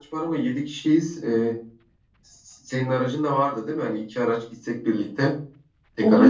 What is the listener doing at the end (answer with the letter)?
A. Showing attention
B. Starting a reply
B